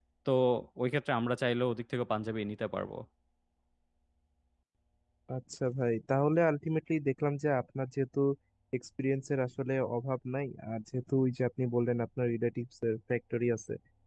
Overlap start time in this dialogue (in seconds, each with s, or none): none